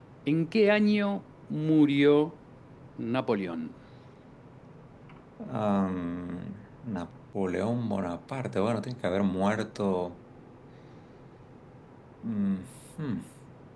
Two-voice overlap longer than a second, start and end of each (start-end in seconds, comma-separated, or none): none